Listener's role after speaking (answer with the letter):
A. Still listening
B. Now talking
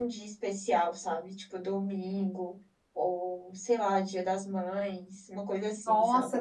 B